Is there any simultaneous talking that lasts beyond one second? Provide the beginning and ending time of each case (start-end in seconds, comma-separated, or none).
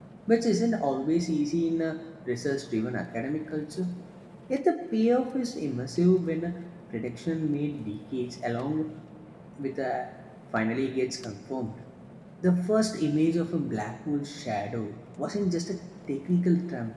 none